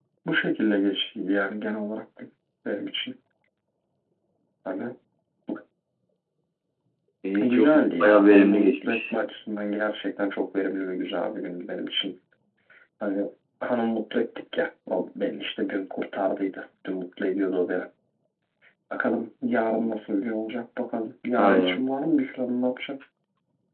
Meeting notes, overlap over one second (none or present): present